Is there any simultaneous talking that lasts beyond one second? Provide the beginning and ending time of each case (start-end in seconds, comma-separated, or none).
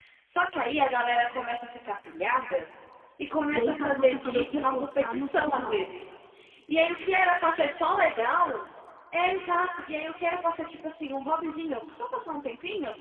3.5-5.9